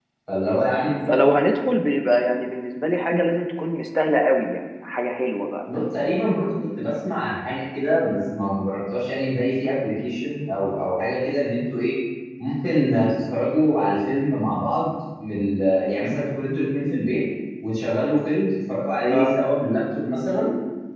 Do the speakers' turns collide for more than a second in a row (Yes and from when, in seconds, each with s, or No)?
No